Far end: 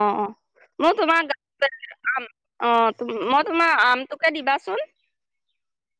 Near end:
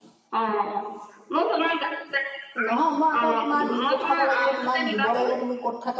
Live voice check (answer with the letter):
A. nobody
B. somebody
B